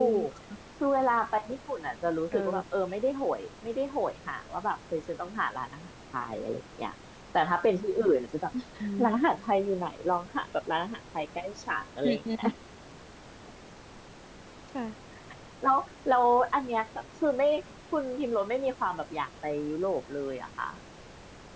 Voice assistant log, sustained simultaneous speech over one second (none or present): none